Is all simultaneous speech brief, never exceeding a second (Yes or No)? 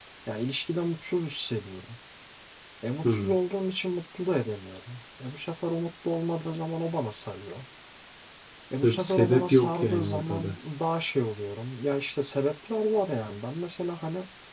No